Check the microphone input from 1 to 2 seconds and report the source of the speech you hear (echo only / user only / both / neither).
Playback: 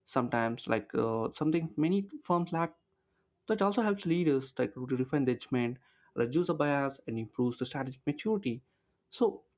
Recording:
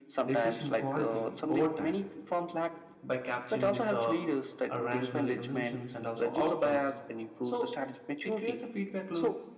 both